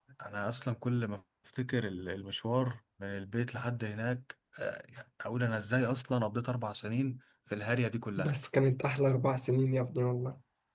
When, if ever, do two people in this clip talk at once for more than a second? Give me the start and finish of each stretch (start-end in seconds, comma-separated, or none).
none